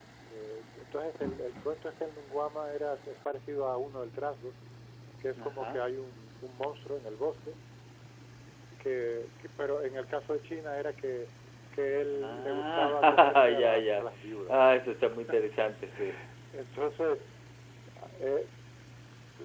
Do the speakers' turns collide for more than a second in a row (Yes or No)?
Yes